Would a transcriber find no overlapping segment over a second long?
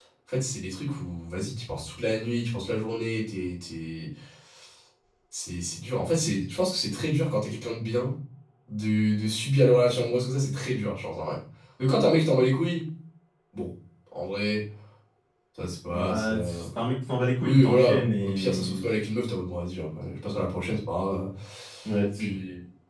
No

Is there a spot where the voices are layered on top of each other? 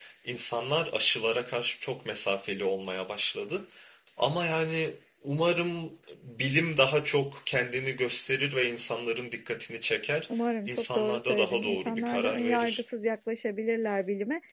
Yes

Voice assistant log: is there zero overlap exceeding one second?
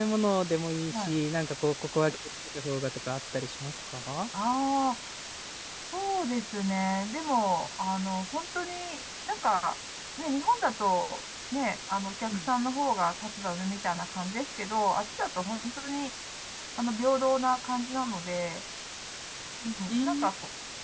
Yes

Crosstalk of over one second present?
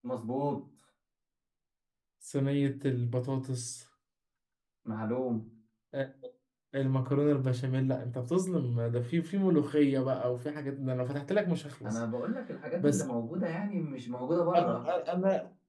No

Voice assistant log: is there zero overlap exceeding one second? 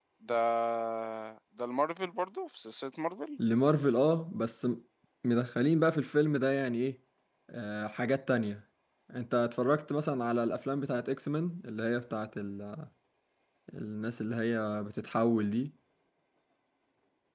Yes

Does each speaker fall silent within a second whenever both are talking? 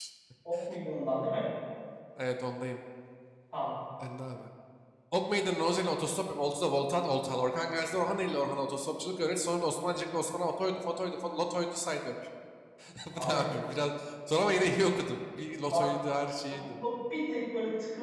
Yes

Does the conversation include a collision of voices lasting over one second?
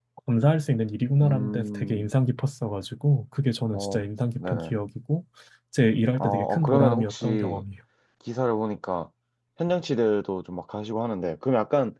Yes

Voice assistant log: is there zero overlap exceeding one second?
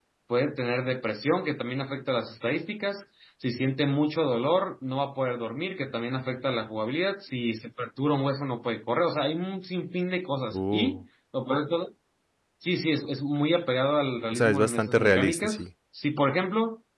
No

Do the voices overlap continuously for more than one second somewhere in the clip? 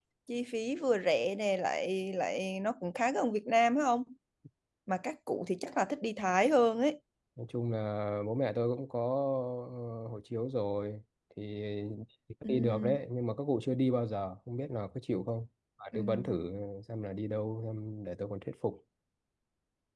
No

